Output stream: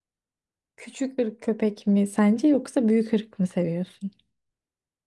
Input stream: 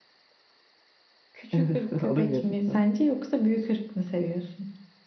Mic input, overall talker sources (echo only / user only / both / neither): both